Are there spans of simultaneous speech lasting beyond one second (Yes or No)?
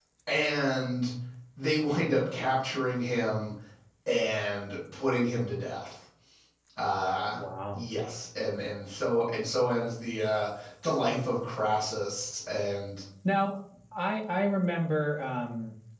No